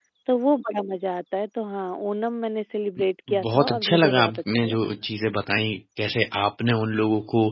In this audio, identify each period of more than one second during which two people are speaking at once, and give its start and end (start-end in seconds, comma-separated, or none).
3.4-4.8